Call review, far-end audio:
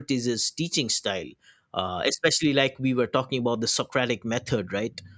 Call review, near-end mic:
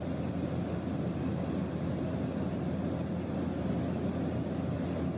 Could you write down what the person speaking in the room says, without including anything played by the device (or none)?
none